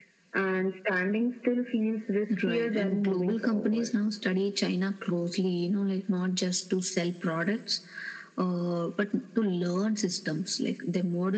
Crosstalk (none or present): present